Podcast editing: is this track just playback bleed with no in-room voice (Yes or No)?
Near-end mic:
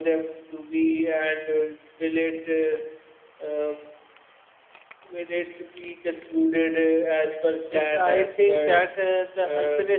No